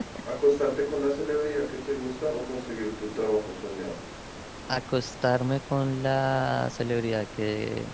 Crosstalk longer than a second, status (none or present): none